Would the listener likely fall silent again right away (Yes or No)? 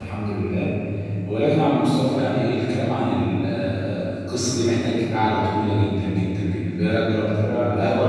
No